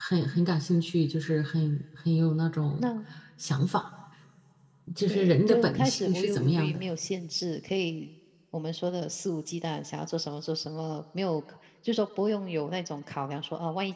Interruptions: present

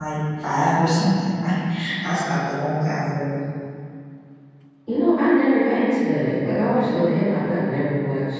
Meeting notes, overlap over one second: none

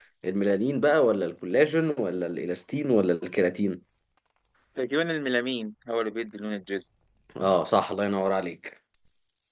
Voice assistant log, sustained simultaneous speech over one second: none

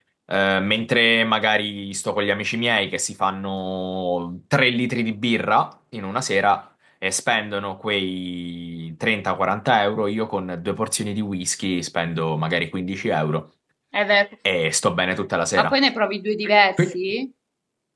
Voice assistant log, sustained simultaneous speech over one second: none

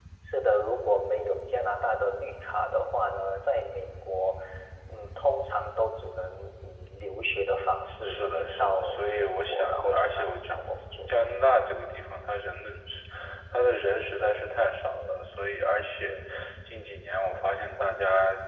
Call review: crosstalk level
present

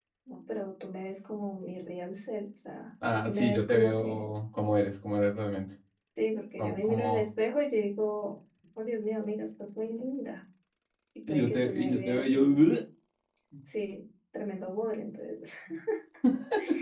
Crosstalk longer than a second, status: present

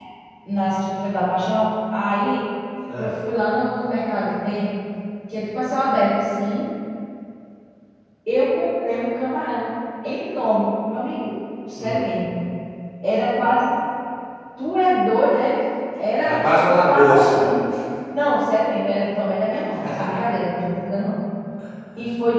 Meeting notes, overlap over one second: present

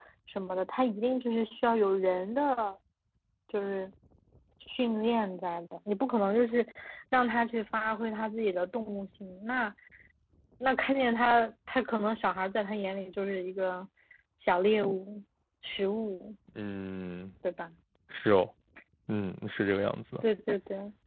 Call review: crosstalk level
none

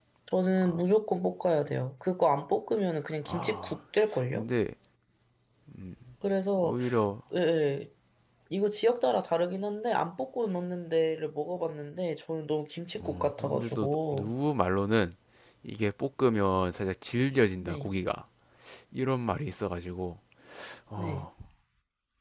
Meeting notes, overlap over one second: present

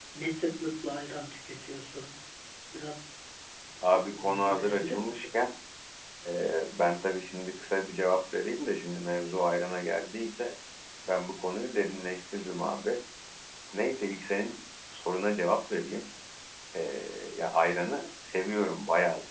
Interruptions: present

